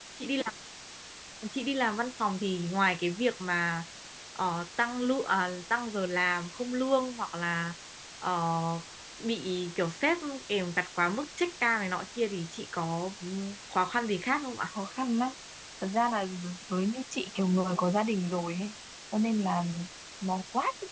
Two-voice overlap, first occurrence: none

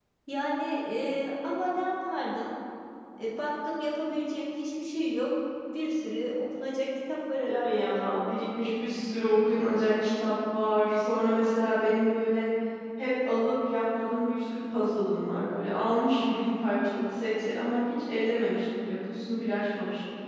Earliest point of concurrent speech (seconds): 7.5 s

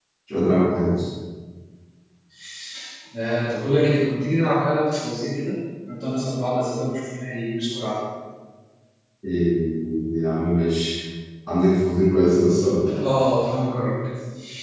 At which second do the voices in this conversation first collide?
none

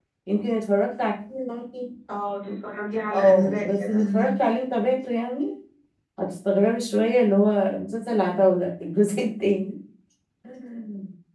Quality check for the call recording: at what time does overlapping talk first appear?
3.1 s

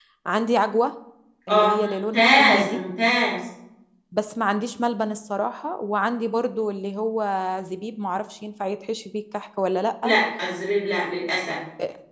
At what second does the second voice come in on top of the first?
1.5 s

